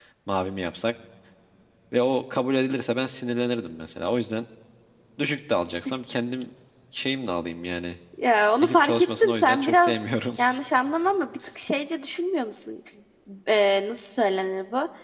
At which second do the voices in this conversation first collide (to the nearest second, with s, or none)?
9 s